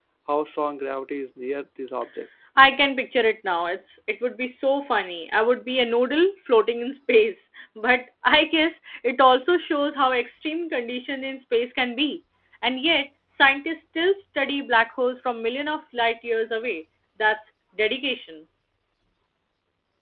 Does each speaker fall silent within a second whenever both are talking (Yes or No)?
Yes